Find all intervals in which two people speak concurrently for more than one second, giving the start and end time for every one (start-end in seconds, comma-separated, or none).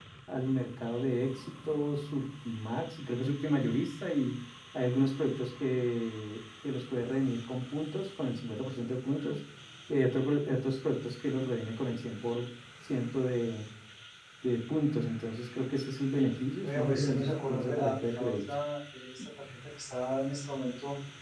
16.6-18.3